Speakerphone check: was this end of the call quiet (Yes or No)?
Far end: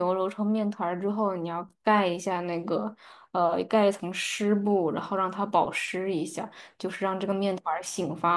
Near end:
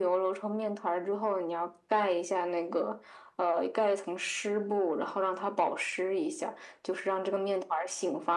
Yes